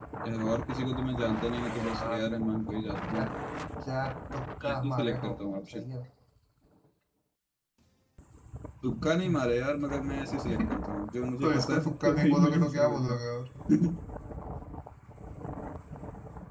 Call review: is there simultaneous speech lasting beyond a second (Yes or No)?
Yes